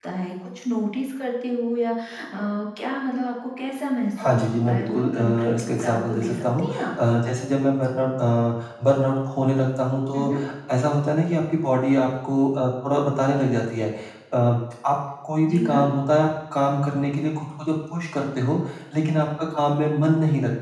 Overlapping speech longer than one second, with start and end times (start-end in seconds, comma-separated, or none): 4.2-6.9